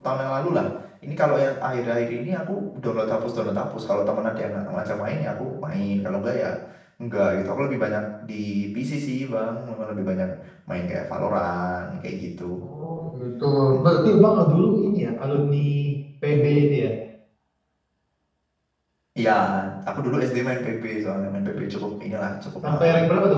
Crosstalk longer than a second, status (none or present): none